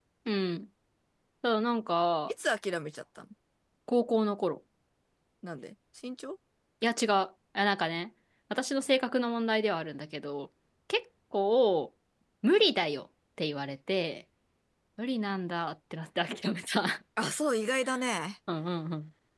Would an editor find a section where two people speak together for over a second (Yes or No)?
No